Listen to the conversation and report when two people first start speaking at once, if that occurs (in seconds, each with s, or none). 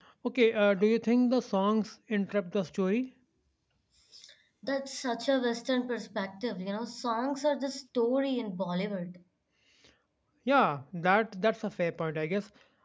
none